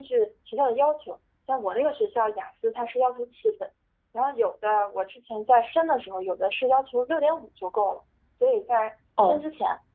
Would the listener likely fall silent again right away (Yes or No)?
Yes